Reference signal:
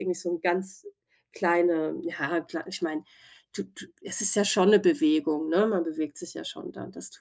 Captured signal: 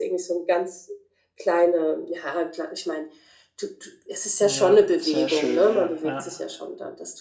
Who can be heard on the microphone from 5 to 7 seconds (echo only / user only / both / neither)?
both